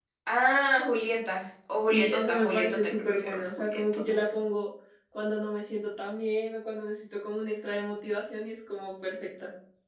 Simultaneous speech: Yes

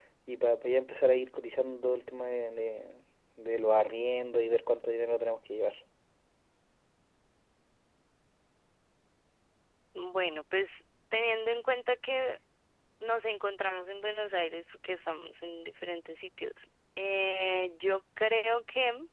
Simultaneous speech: No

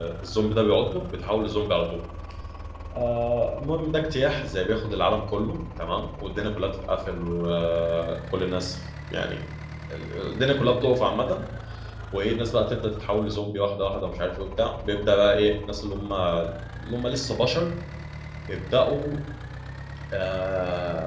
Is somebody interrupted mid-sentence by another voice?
No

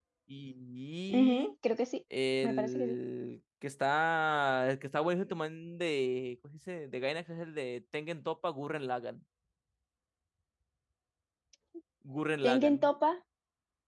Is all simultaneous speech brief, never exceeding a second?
Yes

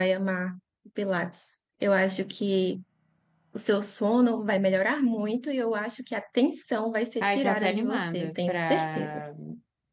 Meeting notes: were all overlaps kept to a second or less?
No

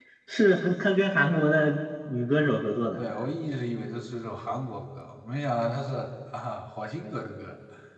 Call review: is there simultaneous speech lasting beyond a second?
No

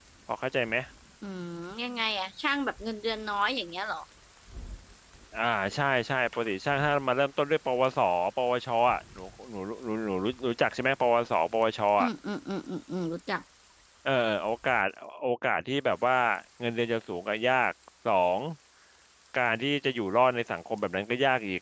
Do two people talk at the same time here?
No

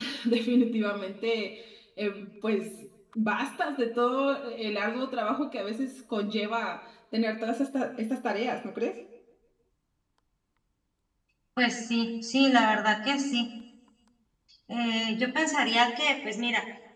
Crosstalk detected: No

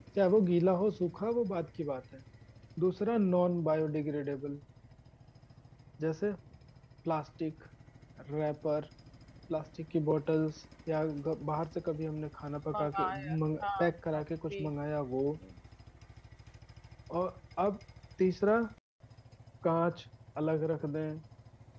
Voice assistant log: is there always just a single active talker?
No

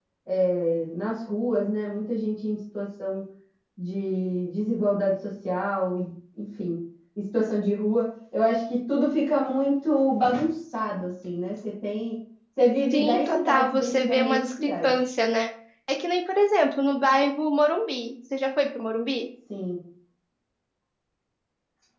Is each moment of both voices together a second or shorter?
No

